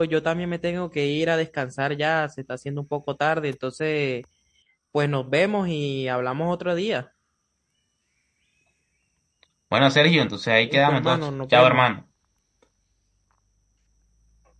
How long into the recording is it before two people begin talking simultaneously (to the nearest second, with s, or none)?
11 s